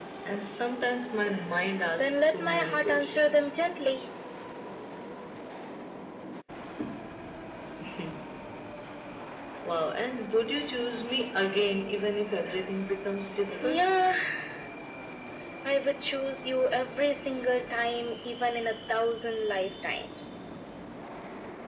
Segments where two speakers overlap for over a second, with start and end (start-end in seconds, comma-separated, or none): 2.0-3.5